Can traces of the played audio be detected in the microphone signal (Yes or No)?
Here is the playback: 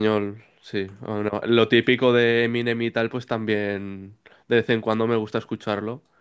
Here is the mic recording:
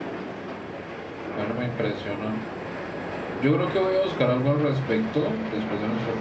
No